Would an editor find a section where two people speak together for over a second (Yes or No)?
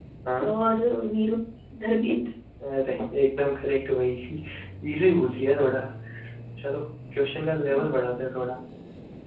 No